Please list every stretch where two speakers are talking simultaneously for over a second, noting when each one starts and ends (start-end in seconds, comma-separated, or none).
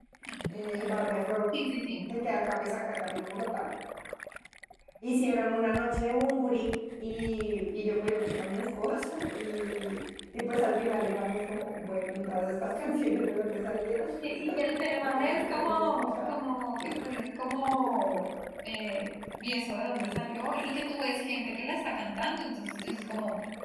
15.1-16.4